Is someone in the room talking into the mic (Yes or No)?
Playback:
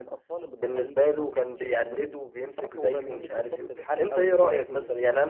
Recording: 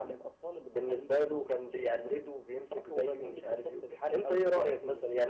No